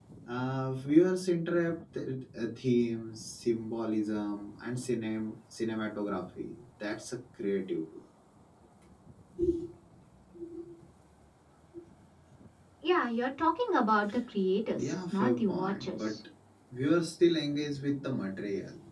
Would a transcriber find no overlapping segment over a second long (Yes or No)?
No